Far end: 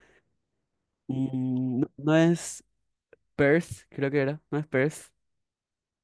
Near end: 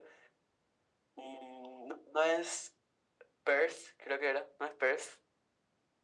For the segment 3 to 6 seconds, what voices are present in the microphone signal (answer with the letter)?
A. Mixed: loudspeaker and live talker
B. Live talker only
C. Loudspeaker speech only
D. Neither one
C